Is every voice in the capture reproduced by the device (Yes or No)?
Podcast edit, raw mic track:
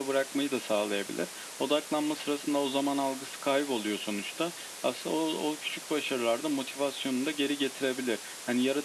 Yes